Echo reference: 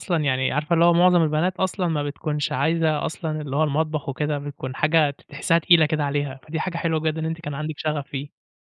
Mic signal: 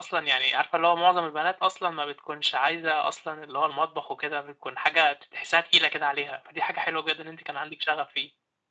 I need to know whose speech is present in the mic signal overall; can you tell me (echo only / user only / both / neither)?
echo only